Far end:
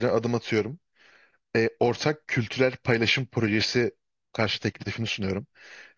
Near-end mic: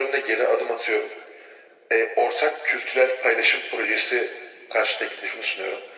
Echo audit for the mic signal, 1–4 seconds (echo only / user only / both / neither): echo only